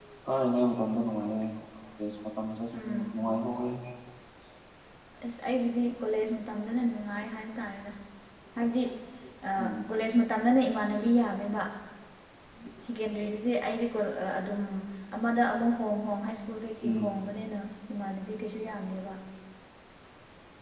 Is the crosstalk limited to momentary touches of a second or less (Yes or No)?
Yes